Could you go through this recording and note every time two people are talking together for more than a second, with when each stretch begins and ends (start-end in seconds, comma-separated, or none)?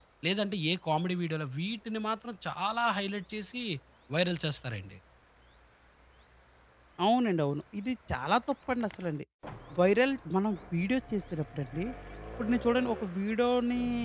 none